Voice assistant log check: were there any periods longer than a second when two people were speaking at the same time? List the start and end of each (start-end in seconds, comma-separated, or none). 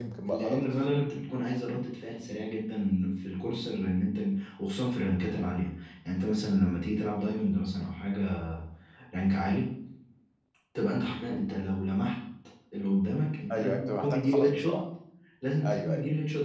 13.5-14.8